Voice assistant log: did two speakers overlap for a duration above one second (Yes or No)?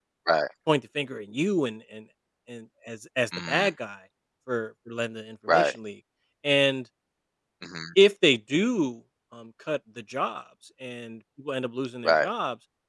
No